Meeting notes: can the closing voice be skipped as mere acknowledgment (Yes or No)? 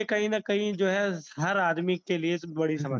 No